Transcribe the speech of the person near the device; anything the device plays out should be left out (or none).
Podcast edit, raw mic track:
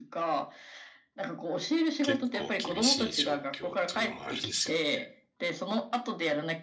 結構厳しい状況っていうのもあるんですよね。